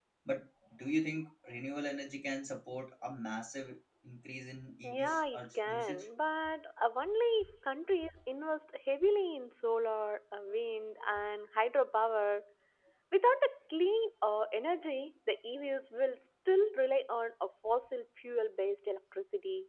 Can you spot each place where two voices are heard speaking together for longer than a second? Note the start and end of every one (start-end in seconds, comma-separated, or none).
4.8-6.0